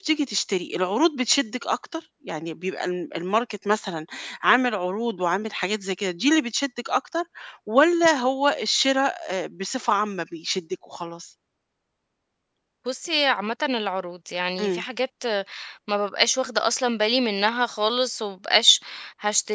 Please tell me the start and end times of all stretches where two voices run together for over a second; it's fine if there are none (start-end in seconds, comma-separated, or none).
none